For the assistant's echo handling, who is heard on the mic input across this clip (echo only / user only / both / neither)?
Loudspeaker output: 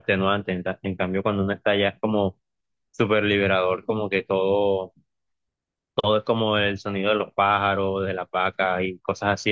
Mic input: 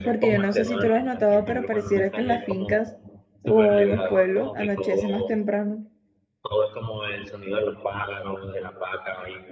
both